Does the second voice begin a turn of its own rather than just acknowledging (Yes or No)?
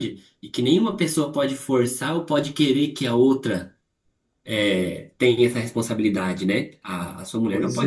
No